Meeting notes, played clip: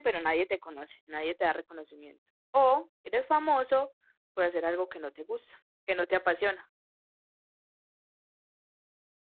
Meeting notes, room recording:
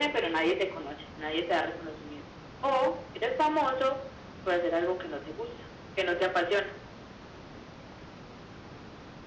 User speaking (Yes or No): No